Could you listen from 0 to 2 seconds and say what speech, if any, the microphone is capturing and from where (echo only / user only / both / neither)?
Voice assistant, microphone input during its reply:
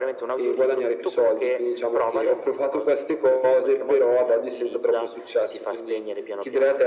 echo only